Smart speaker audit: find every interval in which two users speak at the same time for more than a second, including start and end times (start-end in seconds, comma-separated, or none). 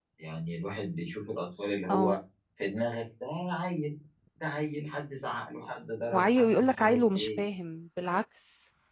6.1-7.4